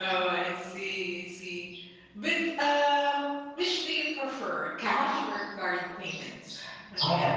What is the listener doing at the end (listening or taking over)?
taking over